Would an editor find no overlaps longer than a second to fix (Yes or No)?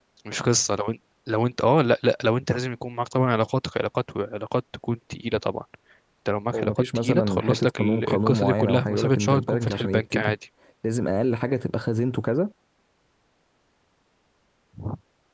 No